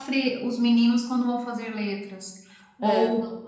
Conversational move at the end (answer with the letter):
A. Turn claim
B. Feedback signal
B